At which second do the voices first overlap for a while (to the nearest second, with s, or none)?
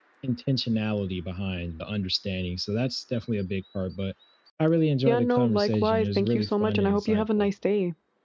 5 s